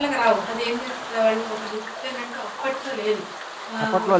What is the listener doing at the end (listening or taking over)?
listening